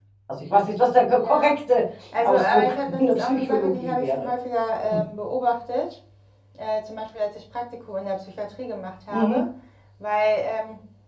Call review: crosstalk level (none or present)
present